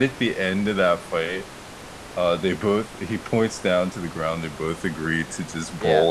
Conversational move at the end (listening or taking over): listening